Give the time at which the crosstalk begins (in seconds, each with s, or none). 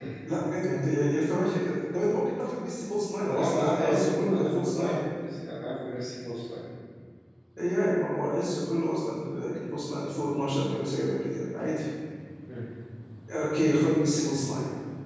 3.2 s